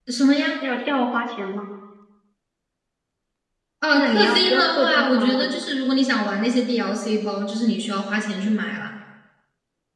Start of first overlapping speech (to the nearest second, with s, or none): 4 s